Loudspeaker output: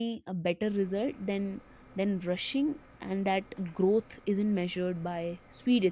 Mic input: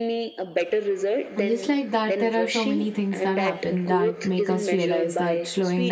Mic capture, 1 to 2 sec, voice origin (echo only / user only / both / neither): both